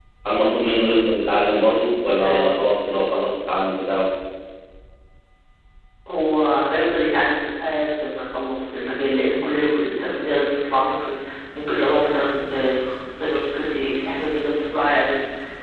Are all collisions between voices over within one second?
Yes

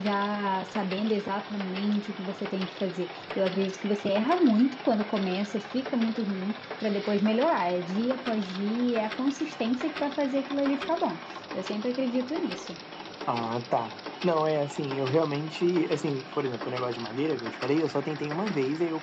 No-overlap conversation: Yes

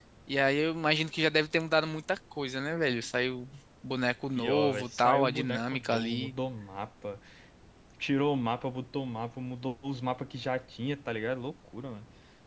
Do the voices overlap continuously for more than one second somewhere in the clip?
Yes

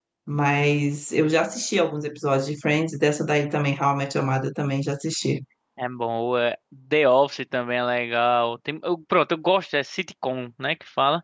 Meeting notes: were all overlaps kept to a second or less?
Yes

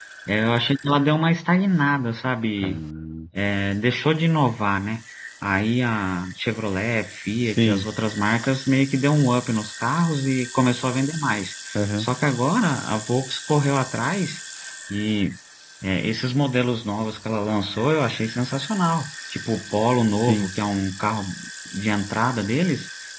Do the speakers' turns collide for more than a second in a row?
No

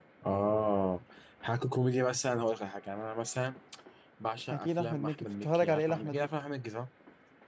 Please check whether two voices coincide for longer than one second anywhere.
Yes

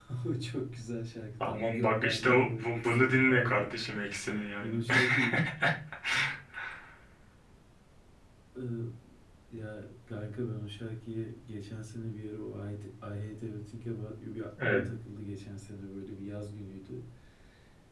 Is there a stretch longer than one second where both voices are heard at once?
Yes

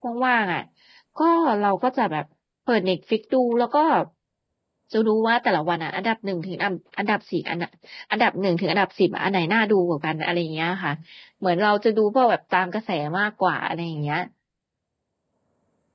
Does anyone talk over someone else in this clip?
No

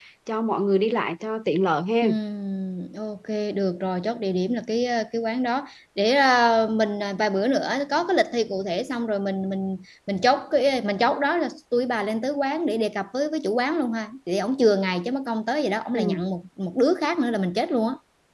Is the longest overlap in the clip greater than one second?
No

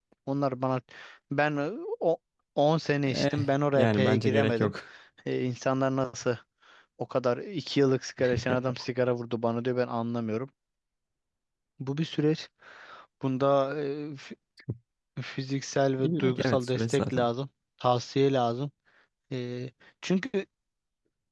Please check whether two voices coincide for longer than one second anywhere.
Yes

